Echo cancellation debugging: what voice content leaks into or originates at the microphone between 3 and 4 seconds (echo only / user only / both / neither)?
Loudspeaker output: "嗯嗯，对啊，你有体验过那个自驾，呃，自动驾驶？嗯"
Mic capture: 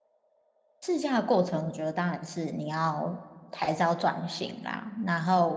user only